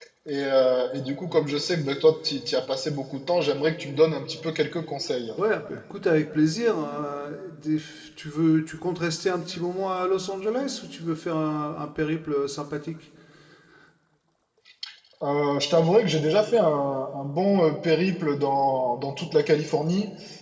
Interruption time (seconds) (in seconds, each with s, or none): none